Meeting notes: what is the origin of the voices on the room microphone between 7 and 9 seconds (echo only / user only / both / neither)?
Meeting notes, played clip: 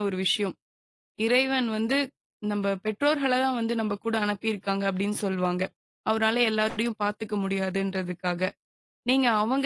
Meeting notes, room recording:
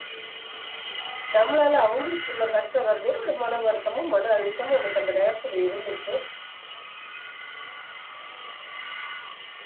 neither